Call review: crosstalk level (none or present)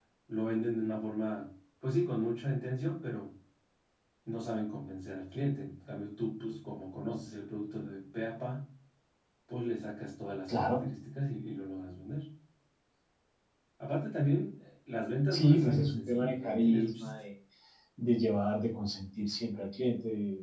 present